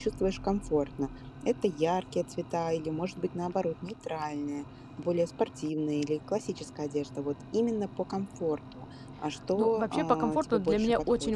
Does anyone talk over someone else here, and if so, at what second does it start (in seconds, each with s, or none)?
9.5 s